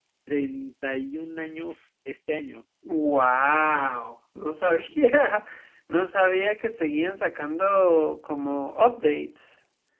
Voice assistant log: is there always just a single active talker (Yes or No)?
Yes